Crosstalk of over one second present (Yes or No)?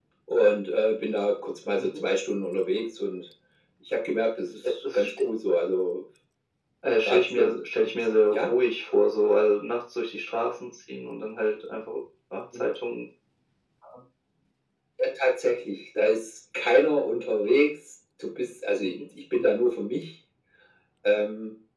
No